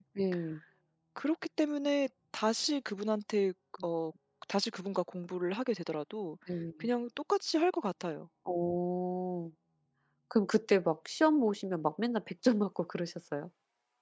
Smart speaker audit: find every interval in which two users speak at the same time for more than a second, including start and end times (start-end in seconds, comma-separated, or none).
none